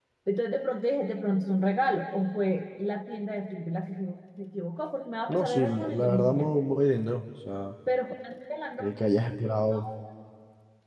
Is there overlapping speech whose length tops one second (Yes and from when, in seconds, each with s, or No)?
Yes, from 5.3 s